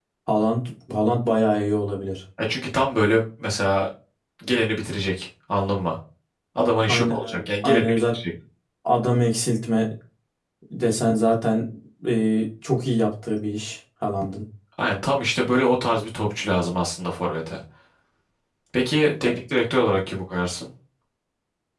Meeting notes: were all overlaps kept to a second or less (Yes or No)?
No